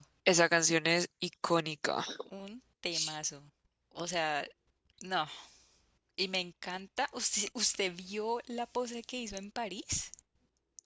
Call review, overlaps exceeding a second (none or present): none